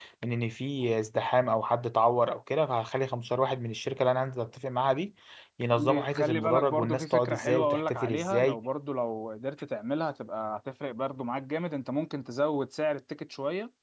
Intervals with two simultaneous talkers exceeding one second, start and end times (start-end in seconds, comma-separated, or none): 5.7-8.6